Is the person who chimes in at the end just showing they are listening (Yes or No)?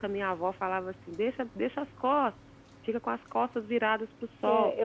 No